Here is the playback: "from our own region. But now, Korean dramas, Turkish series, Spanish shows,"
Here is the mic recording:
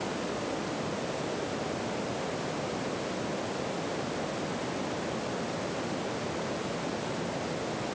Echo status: none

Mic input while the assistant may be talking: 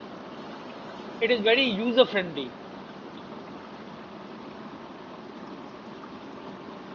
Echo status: none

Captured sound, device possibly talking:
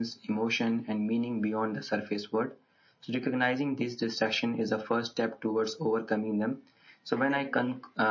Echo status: present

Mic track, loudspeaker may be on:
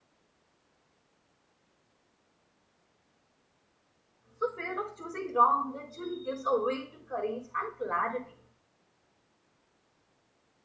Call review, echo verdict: none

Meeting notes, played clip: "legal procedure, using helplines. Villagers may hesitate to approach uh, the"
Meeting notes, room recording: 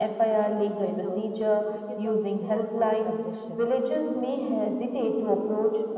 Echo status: present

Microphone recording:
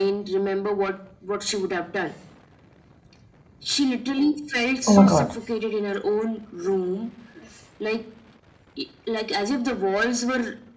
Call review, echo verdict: present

